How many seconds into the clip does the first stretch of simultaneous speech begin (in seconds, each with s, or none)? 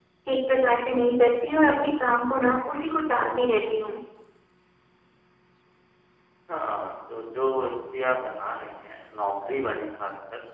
none